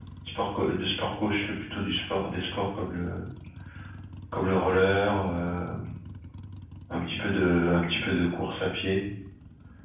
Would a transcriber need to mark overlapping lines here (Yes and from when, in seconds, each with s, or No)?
No